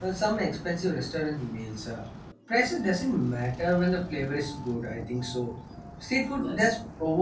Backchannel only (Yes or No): Yes